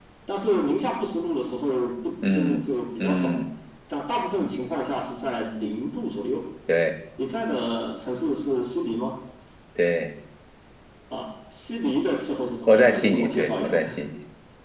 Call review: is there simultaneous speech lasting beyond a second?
Yes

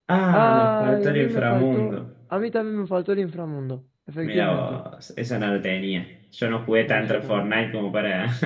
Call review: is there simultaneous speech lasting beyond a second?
Yes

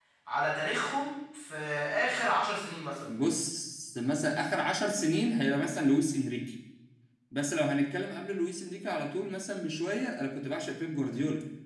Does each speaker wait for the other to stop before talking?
Yes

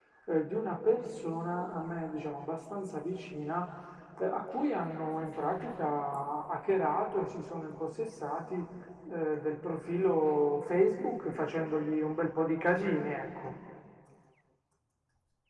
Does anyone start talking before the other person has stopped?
No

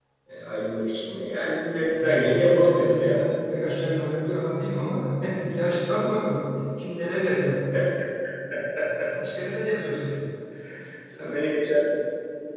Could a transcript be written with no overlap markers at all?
No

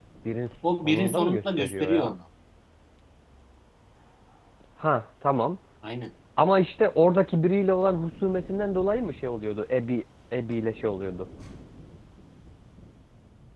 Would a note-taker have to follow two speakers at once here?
Yes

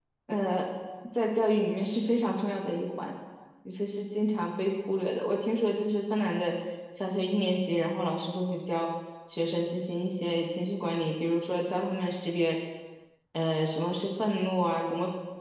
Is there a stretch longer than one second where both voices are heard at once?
No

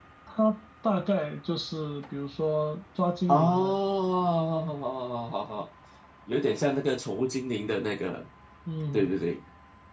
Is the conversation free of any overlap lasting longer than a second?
Yes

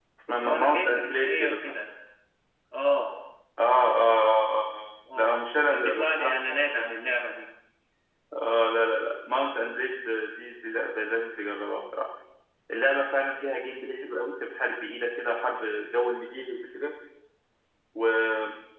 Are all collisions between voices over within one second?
No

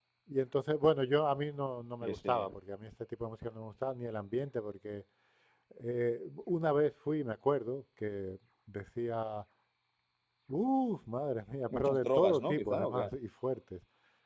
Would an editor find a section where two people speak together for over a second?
Yes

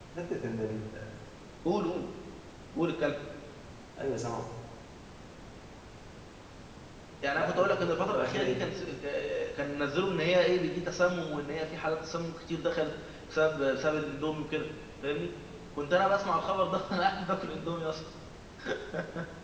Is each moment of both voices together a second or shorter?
No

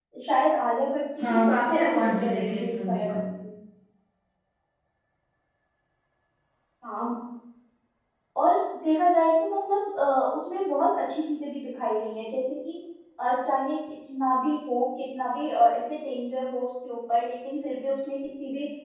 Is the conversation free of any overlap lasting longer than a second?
No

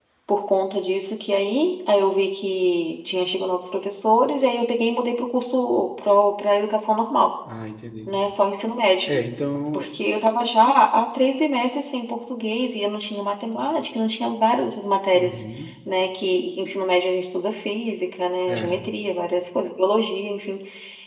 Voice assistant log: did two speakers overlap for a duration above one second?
No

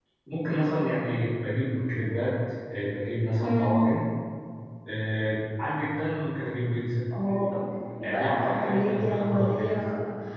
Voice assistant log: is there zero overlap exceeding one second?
No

